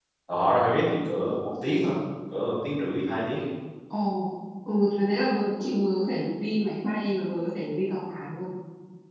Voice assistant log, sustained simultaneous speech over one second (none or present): none